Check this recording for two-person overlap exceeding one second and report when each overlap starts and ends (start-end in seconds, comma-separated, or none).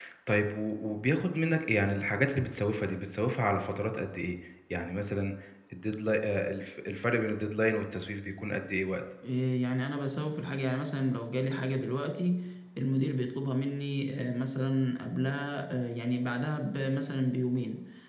none